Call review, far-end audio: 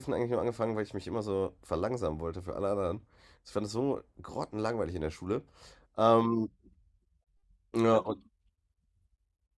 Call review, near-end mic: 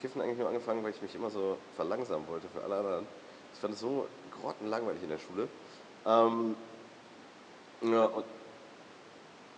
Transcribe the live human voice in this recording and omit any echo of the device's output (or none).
none